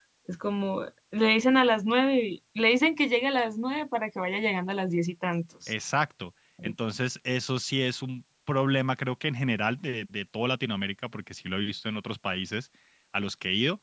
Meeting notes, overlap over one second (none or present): none